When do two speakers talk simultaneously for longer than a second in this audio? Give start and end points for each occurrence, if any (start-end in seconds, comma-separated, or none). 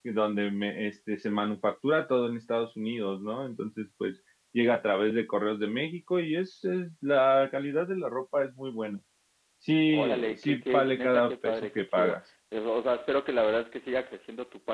9.9-12.2